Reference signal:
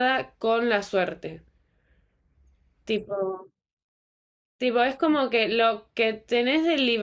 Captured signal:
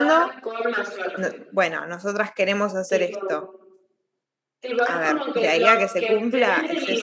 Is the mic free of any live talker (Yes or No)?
No